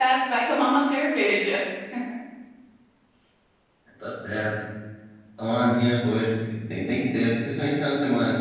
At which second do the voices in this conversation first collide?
none

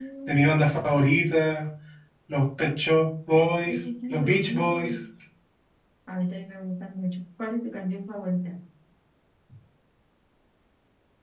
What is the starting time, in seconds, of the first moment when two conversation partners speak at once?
3.7 s

